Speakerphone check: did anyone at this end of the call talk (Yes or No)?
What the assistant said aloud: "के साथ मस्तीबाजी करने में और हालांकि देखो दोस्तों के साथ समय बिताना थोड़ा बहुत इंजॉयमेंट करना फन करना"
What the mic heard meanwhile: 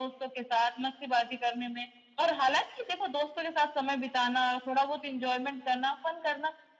No